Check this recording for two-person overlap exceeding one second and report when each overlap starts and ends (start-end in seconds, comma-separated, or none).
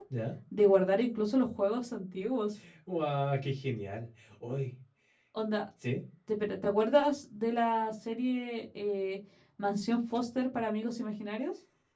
none